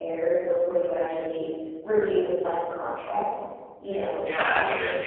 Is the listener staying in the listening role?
No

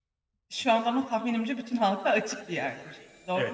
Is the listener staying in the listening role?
No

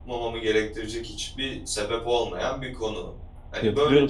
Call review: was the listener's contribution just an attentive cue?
No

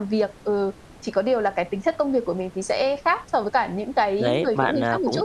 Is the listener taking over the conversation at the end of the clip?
Yes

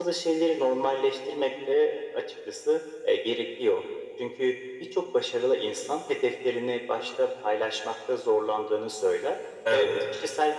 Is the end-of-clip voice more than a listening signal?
No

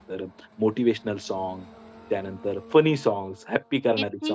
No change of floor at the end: No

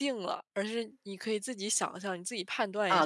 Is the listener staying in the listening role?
No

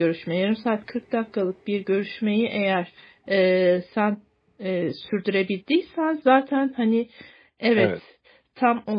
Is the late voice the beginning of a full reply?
No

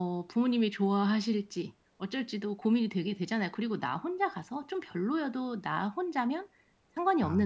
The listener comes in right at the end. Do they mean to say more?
No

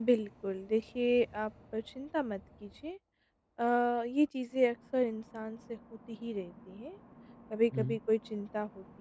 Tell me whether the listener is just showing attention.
Yes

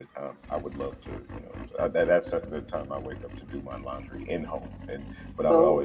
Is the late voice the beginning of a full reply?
No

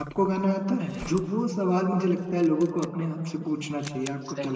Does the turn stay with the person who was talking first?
No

